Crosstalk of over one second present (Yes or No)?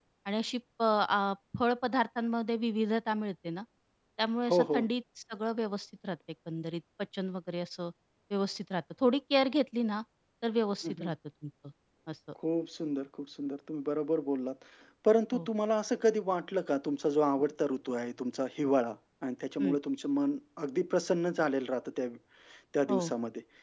No